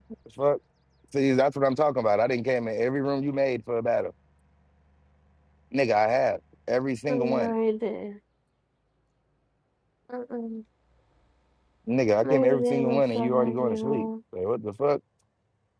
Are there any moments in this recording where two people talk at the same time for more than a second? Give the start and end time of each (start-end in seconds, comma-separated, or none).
12.2-14.1